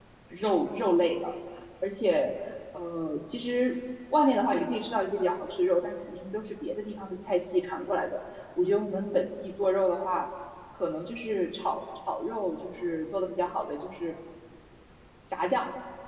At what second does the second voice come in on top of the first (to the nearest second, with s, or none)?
none